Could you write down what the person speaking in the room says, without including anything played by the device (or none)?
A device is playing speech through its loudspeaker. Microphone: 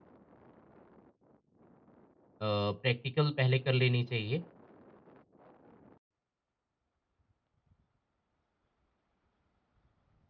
प्रैक्टिकल पहले कर लेनी चाहिए।